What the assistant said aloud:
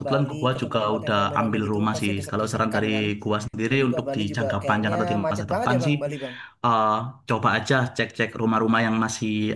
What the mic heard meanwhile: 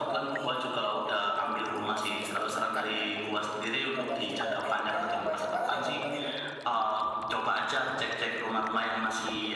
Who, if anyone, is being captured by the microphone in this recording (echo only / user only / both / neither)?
echo only